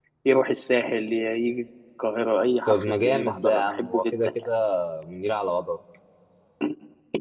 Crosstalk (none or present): present